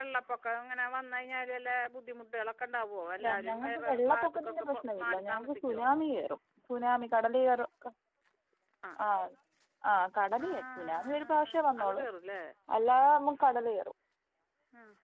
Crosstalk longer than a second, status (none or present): present